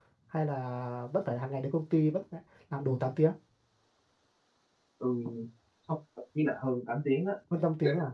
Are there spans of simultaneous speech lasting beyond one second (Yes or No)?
No